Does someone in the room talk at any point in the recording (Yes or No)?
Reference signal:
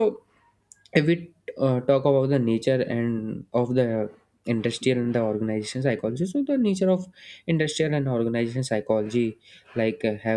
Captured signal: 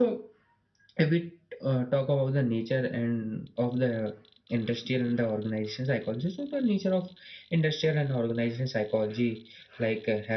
No